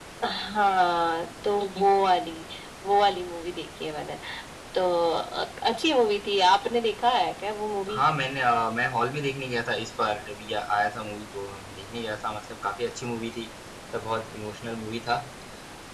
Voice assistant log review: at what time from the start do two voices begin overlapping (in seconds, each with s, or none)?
none